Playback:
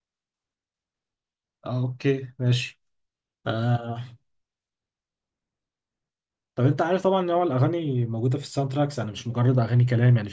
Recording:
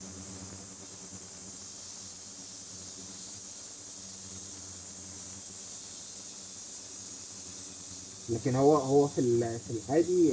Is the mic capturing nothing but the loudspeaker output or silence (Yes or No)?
No